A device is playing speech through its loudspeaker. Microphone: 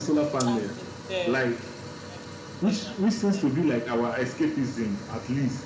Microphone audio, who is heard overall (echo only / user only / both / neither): both